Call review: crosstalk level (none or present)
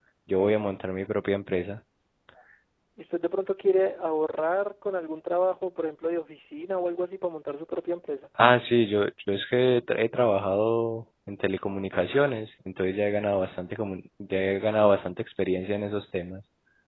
none